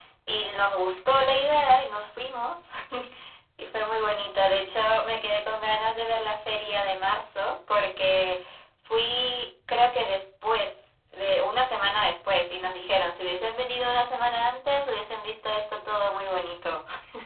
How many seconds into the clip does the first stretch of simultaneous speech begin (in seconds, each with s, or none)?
none